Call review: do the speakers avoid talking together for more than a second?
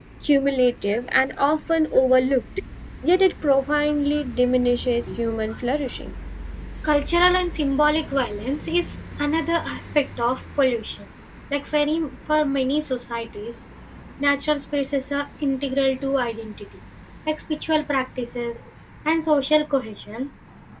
Yes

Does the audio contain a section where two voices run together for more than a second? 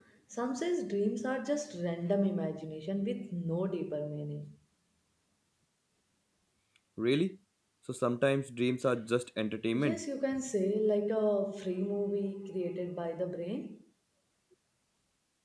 No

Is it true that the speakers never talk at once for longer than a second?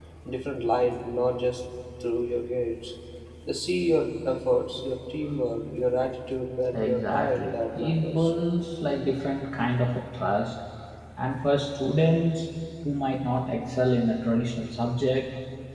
No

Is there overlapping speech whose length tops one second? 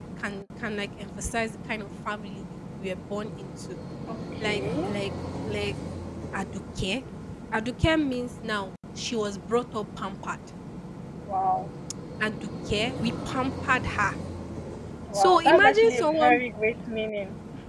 Yes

